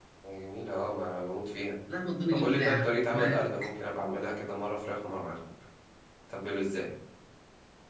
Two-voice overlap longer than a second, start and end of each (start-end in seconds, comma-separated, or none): 2.3-3.7